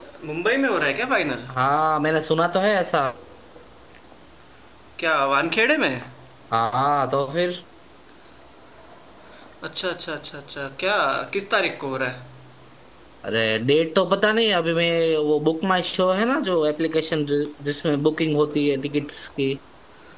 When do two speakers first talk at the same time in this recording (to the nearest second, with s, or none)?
none